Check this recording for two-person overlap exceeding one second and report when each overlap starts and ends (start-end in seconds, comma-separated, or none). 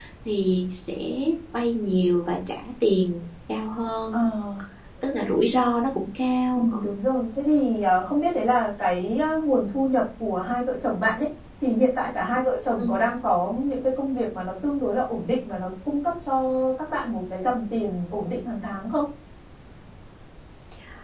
none